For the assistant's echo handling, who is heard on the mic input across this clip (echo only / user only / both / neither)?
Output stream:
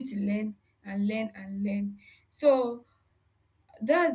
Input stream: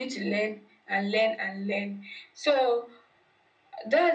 echo only